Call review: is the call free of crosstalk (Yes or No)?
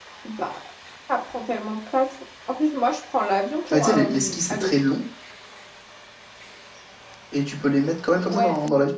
No